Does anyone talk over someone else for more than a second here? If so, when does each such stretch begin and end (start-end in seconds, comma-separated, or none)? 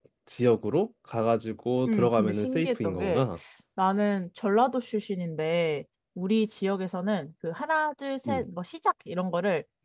1.9-3.2